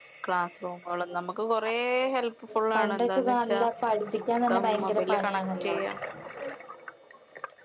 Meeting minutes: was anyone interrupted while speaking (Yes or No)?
Yes